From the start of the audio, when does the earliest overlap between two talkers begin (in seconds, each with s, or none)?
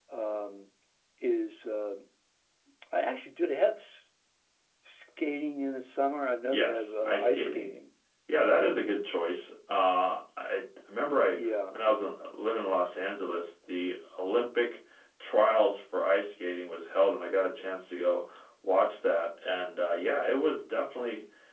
6.5 s